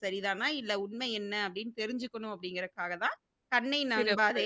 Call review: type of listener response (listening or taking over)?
listening